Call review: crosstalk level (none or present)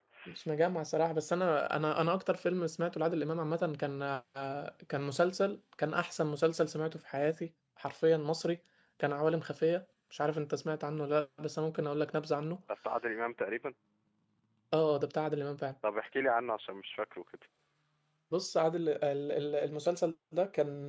none